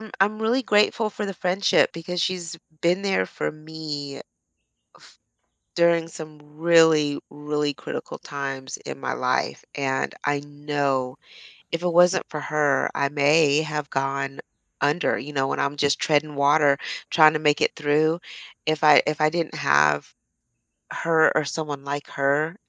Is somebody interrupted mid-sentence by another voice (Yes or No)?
No